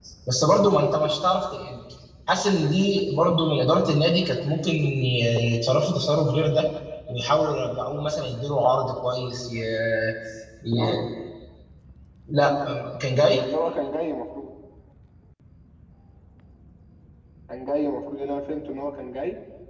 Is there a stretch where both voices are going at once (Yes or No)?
No